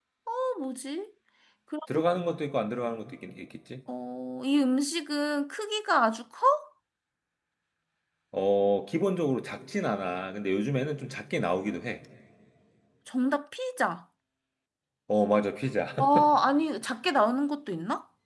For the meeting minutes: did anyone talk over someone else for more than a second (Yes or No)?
No